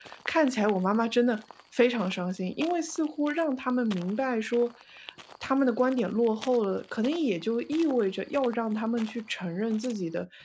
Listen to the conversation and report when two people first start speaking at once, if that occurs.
none

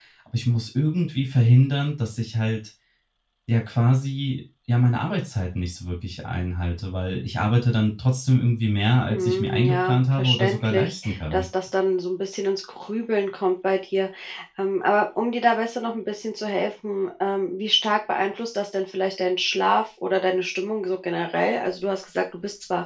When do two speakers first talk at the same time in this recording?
9.1 s

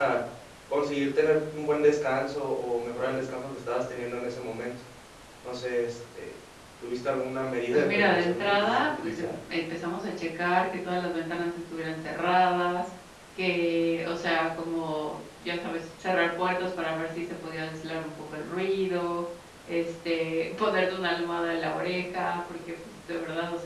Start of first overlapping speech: 7.7 s

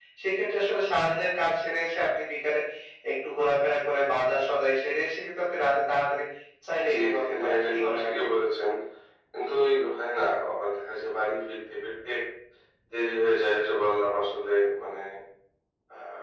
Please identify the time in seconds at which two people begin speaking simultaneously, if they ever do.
6.9 s

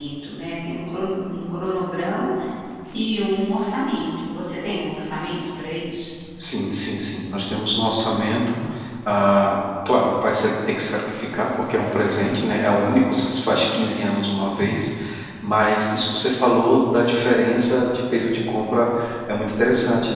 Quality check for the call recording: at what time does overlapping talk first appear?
none

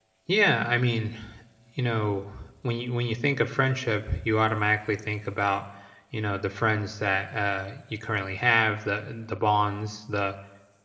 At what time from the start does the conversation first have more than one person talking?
none

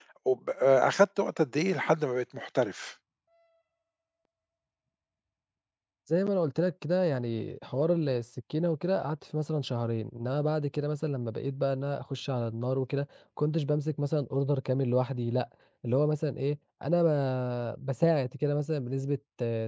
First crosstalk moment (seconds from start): none

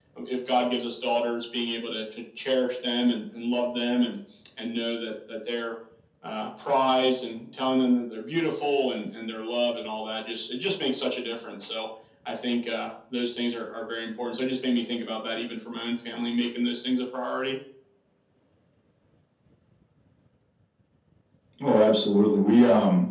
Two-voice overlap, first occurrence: none

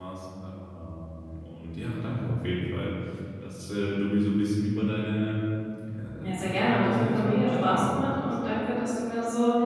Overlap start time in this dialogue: 6.2 s

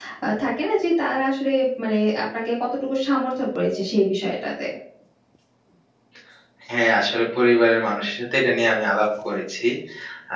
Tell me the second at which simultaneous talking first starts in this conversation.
none

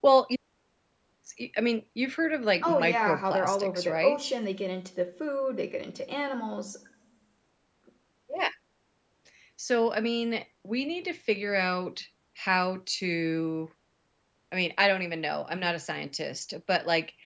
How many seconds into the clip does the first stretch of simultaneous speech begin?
2.6 s

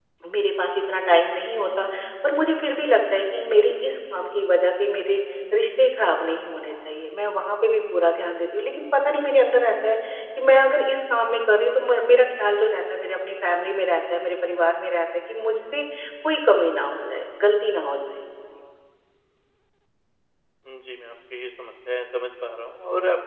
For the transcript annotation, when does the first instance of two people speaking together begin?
none

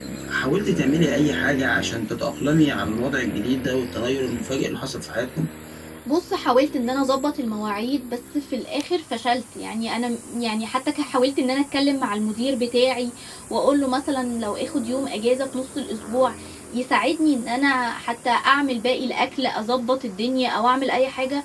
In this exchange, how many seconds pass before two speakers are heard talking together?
none

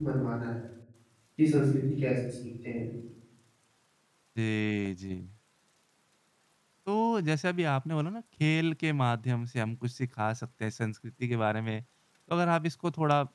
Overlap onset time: none

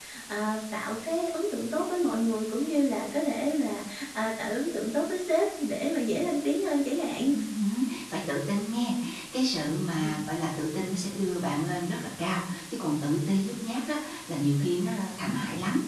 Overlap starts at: none

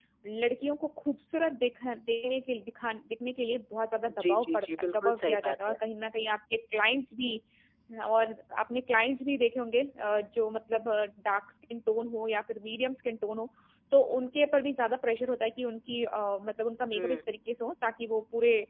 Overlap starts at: 4.1 s

